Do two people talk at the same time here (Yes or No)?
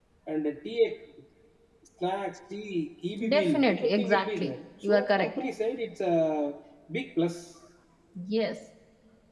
Yes